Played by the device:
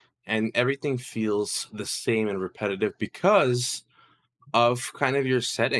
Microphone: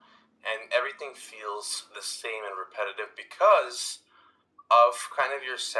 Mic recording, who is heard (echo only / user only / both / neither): echo only